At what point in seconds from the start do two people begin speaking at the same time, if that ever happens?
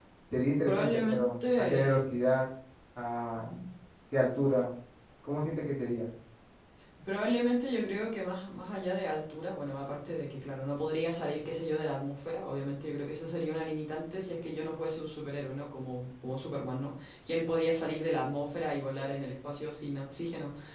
0.7 s

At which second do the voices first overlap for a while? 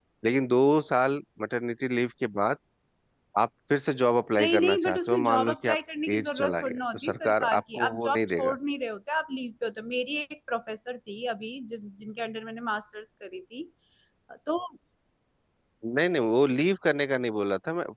4.4 s

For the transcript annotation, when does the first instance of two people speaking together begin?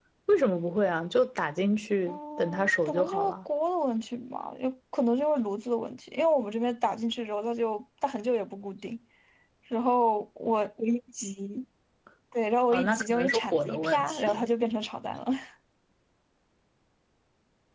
2.1 s

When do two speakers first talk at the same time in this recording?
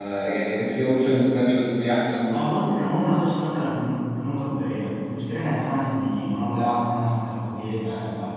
none

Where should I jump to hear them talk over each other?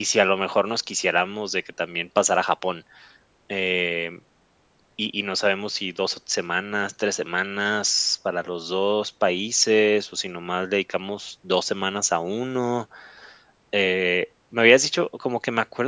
none

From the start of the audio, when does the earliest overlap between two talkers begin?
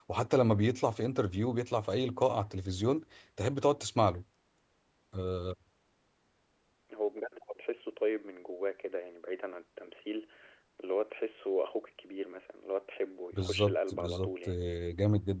13.3 s

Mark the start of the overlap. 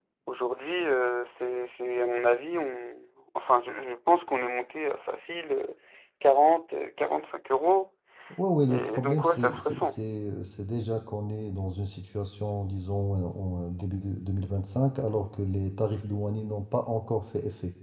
8.7 s

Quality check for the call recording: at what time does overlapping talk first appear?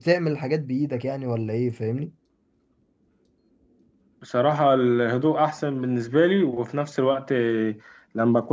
none

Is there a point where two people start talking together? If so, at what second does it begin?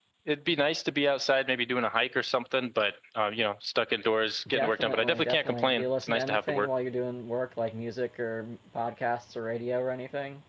4.5 s

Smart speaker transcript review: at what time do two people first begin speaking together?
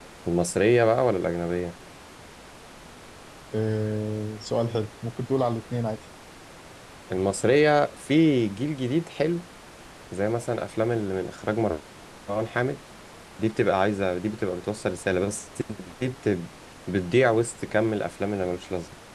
none

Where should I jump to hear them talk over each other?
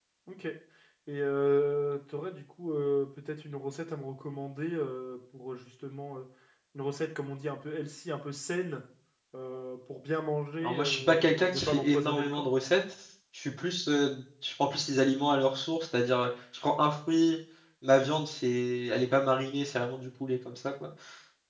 10.6 s

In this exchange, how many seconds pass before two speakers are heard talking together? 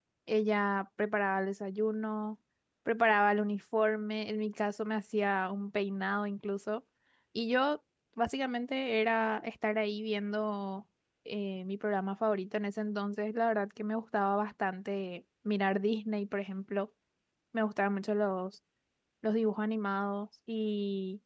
none

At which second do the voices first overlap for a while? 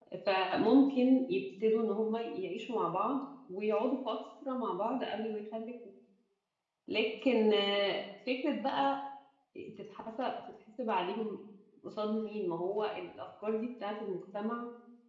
none

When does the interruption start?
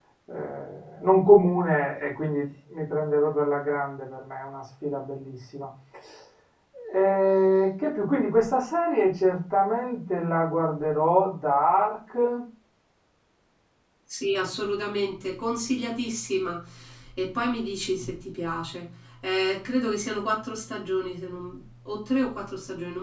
none

